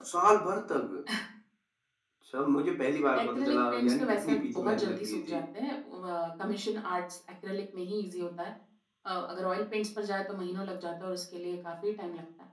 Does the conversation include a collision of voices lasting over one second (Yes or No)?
Yes